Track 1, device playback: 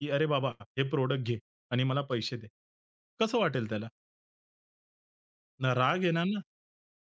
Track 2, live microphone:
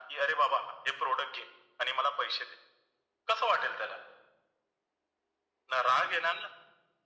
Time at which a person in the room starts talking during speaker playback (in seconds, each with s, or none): none